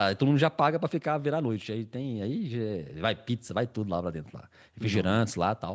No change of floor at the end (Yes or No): Yes